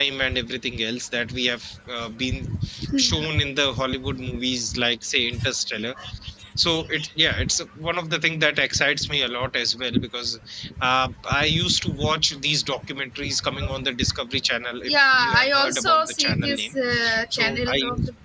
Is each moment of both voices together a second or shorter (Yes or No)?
No